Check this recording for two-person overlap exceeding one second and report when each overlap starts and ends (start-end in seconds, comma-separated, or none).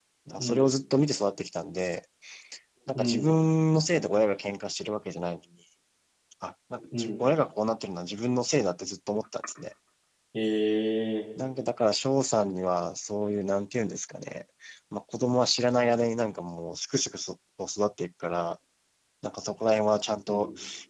none